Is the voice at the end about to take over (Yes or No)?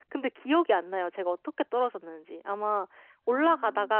No